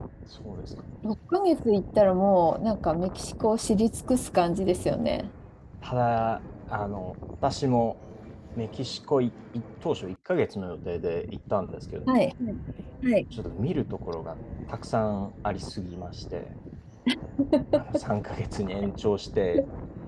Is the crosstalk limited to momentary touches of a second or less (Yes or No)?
Yes